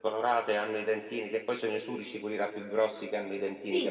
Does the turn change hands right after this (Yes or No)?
Yes